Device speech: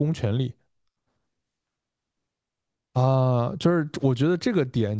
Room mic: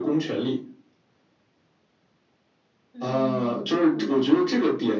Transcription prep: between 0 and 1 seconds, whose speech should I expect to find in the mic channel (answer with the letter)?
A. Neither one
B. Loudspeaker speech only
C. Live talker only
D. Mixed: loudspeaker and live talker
B